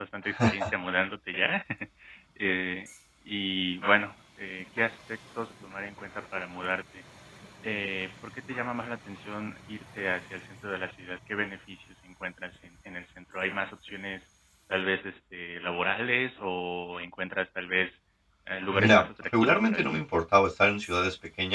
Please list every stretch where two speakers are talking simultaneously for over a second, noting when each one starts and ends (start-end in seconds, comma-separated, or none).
18.7-20.0